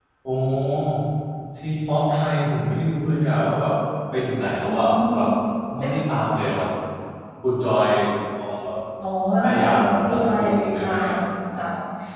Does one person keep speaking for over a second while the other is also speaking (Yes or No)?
Yes